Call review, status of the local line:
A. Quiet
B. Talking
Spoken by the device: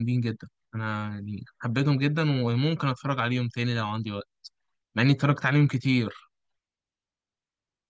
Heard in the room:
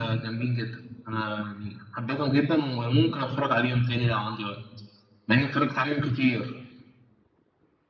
A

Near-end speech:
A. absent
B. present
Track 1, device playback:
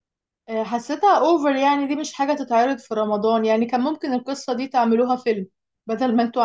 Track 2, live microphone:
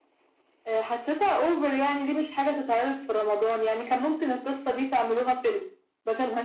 A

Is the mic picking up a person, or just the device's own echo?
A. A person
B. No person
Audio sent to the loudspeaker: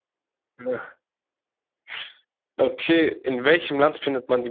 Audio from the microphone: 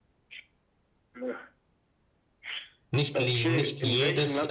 A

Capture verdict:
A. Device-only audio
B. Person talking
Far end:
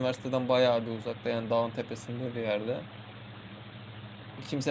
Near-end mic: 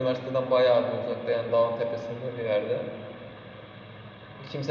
A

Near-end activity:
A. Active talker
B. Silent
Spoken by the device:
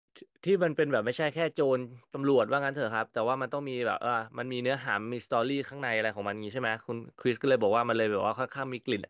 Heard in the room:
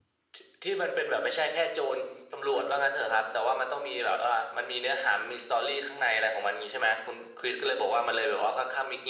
B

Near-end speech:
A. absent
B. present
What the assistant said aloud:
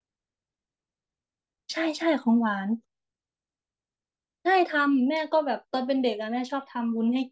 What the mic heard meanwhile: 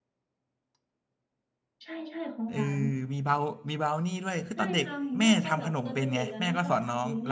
B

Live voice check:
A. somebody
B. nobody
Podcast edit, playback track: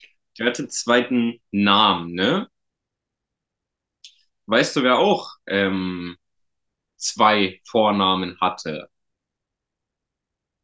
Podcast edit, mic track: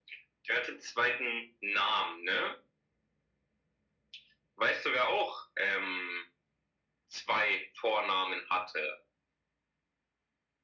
B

